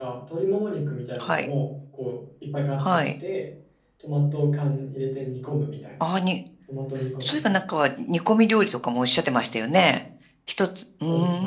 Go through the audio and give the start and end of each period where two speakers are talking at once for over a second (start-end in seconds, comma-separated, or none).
none